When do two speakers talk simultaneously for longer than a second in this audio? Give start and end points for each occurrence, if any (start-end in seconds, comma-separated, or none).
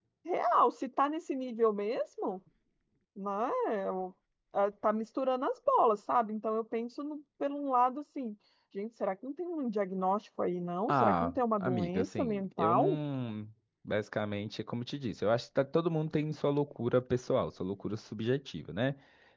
10.9-13.0